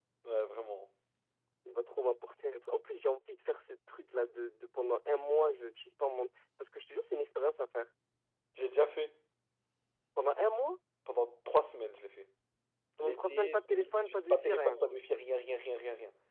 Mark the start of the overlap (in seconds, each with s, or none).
13.0 s